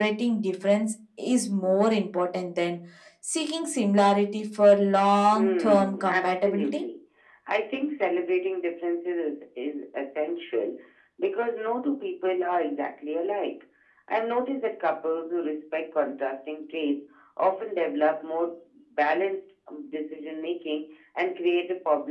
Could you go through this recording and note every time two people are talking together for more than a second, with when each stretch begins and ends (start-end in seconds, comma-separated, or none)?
5.3-6.8